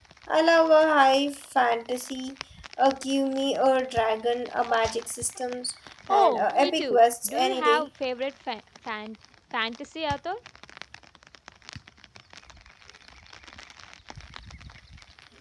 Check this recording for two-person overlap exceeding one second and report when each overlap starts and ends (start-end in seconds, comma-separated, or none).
6.1-7.9